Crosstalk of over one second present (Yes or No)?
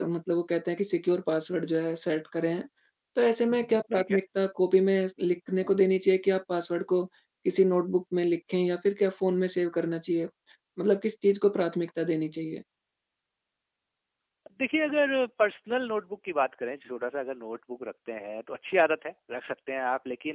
No